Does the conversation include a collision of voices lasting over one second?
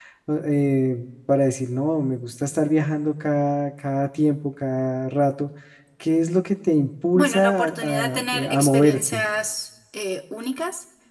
Yes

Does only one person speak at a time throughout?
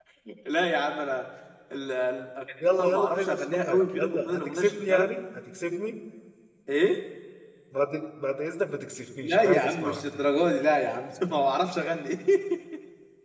No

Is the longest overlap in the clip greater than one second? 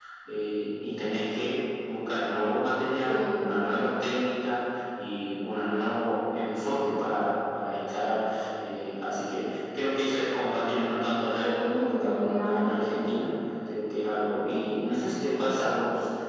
Yes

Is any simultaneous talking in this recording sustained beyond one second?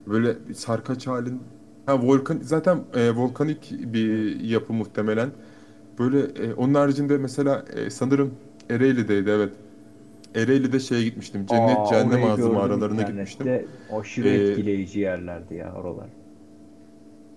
Yes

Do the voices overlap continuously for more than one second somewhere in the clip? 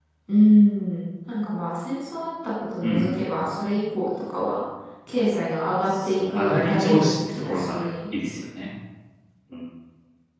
Yes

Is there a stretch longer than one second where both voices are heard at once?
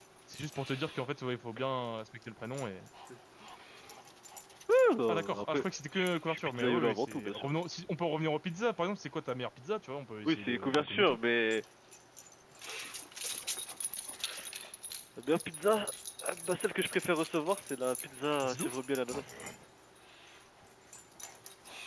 Yes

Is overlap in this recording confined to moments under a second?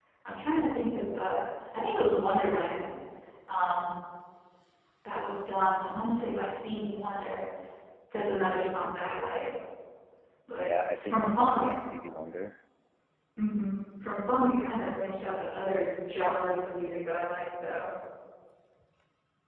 No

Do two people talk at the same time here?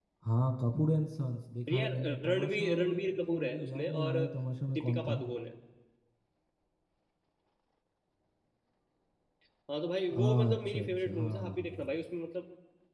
Yes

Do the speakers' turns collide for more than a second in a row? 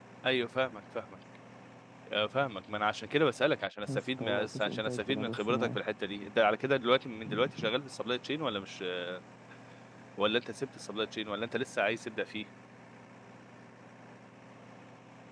Yes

